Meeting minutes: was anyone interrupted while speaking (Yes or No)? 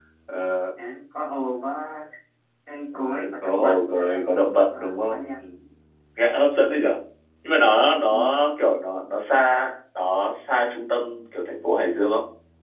Yes